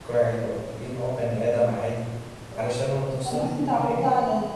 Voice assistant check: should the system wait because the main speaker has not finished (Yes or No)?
No